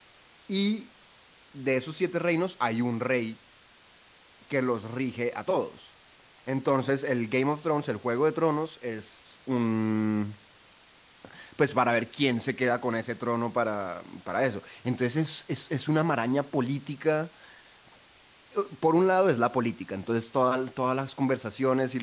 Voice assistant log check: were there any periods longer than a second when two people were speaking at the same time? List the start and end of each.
none

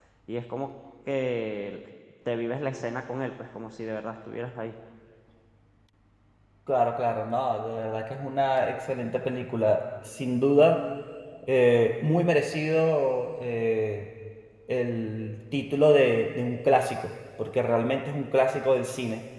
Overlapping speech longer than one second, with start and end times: none

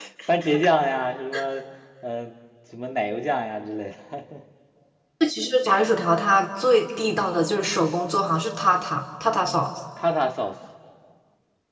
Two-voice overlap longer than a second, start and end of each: none

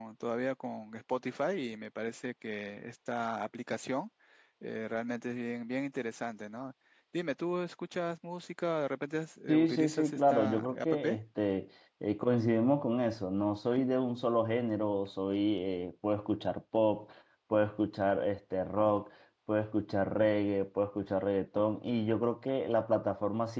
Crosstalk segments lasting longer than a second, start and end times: 9.5-10.9

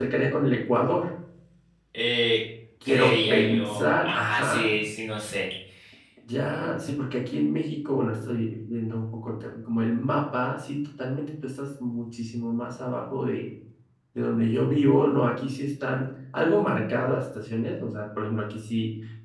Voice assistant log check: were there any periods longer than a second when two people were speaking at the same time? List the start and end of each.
2.8-4.8

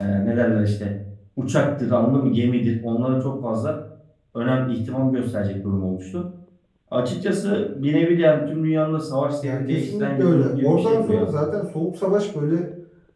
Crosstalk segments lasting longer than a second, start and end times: 9.4-11.3

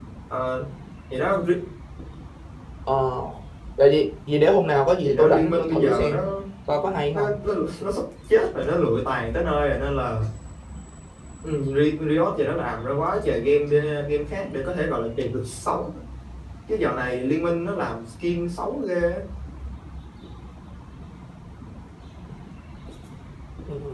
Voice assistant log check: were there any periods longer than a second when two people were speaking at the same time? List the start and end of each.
5.0-6.3

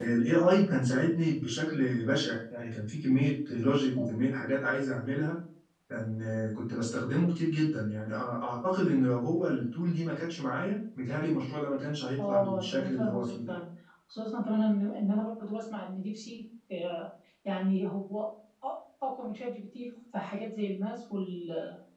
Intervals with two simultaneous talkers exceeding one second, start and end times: 12.3-13.5

